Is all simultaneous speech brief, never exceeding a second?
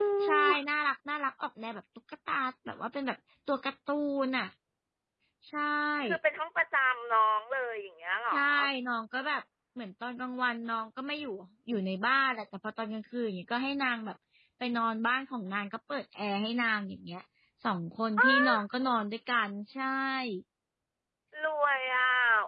Yes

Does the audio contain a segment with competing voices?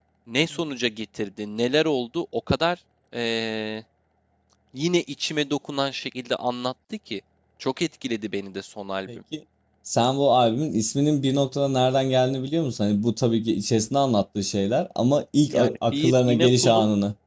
Yes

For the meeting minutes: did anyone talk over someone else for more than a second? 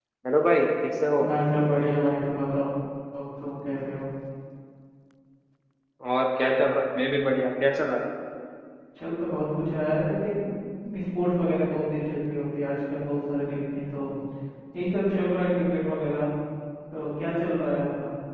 No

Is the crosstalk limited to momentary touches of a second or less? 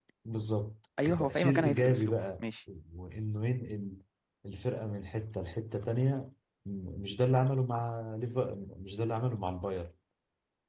No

